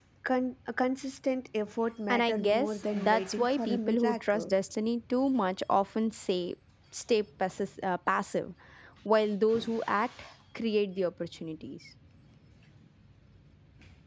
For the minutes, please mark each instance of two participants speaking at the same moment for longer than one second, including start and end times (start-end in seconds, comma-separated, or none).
2.1-4.5